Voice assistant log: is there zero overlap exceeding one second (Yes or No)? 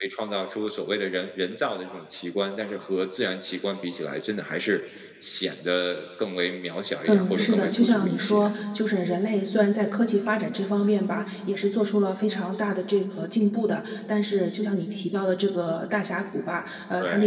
No